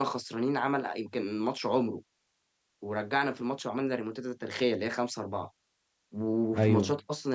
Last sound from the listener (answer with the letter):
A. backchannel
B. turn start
A